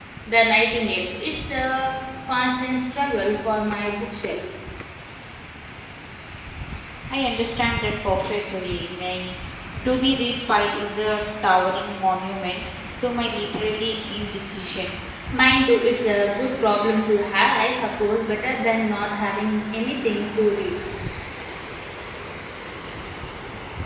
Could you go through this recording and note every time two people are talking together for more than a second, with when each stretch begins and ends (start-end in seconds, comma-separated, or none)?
none